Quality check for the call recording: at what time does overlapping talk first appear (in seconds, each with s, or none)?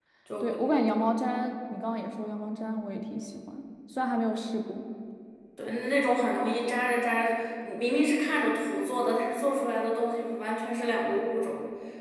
none